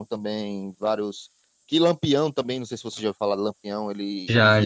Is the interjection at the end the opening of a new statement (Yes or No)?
No